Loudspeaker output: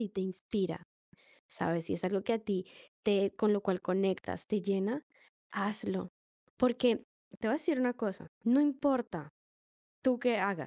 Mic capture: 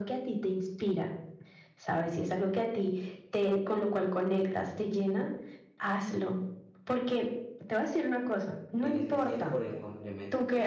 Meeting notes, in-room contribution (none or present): present